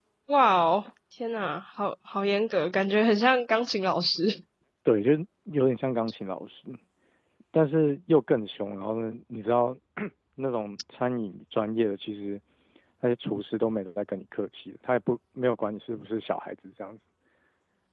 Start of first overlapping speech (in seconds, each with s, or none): none